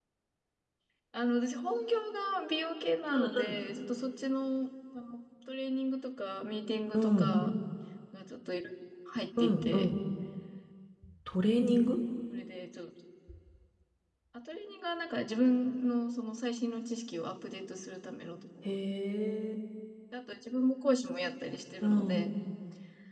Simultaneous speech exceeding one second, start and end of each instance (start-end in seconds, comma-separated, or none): none